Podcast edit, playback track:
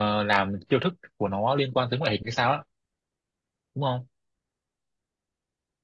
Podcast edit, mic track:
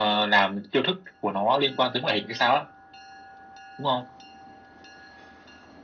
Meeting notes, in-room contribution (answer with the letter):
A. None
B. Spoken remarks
A